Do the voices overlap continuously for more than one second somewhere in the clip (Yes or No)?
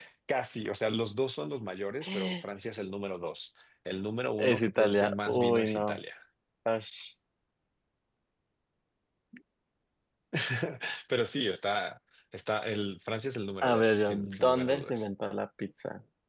Yes